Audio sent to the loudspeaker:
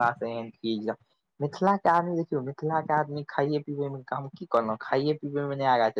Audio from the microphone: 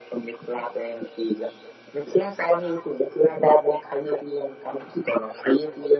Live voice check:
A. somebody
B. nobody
B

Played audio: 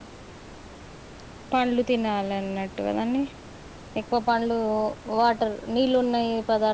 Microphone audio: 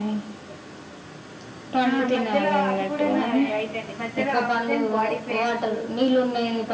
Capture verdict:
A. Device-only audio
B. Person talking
B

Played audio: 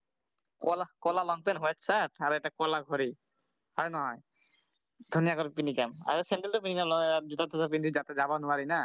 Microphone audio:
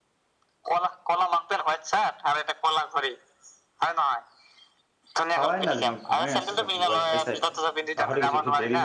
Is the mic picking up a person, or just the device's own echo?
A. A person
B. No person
A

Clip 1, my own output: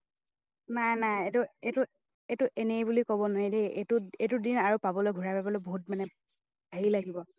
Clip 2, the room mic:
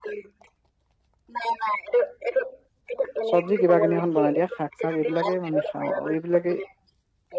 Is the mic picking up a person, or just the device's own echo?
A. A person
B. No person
A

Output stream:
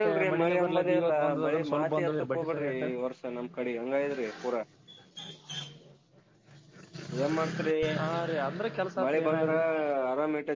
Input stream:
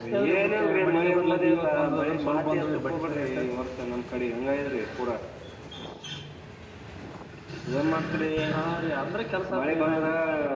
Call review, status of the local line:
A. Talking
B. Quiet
B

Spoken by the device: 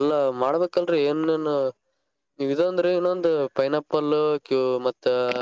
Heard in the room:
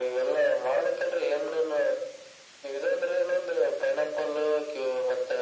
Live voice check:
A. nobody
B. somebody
A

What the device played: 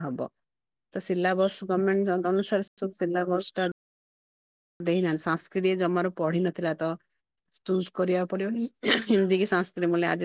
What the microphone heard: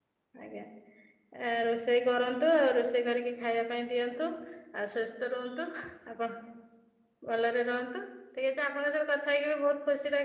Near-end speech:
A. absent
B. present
B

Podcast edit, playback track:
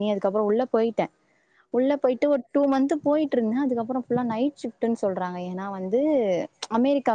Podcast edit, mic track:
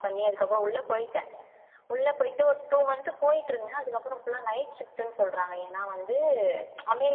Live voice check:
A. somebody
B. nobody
B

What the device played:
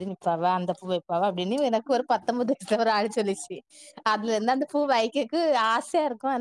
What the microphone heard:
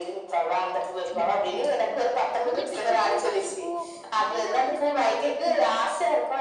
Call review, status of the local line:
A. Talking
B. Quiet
A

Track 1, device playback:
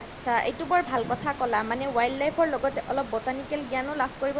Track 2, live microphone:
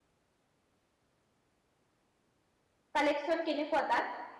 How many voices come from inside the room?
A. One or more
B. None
A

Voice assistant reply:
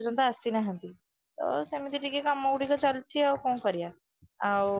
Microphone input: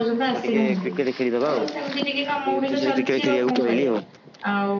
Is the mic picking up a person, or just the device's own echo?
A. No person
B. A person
B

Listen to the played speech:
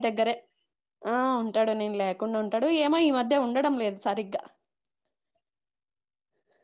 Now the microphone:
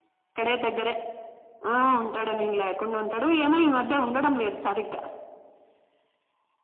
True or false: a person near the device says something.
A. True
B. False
B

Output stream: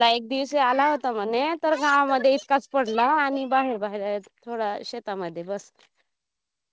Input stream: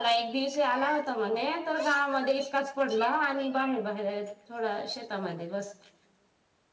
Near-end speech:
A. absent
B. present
A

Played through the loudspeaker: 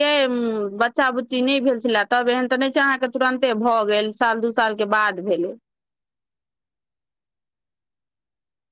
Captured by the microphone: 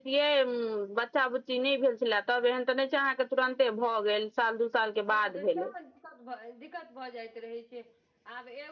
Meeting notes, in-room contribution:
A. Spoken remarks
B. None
A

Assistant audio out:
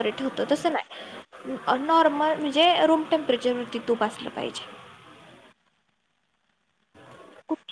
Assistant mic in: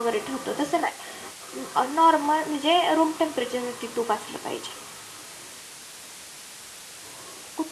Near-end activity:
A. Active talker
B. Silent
B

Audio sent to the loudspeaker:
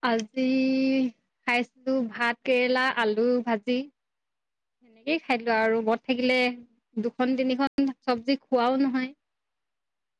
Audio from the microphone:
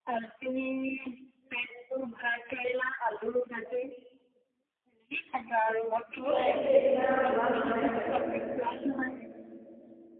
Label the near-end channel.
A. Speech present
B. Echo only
A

